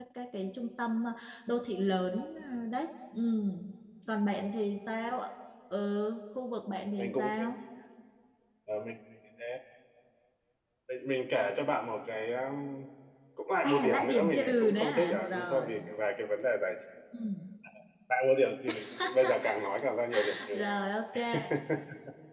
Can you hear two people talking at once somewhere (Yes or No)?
Yes